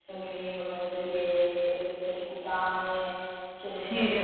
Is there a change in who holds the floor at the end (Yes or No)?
No